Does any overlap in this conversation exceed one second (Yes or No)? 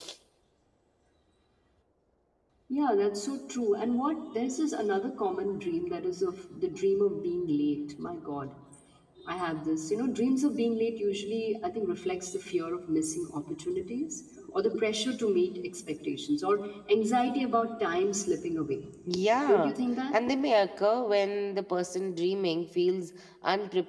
No